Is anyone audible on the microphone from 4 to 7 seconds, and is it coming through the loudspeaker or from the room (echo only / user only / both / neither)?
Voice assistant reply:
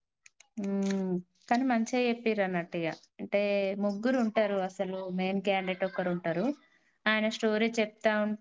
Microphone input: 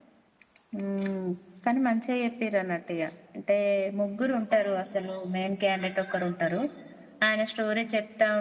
echo only